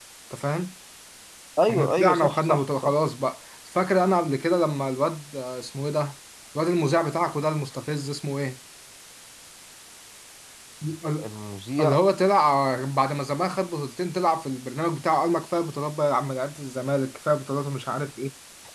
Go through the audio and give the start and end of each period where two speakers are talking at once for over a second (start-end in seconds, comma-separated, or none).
1.7-2.9